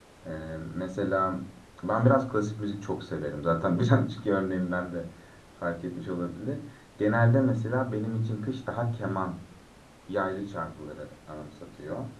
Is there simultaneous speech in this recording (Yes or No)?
No